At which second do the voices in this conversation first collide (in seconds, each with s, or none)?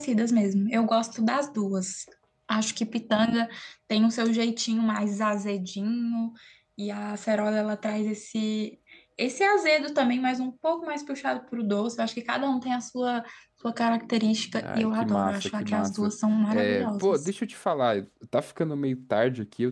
14.6 s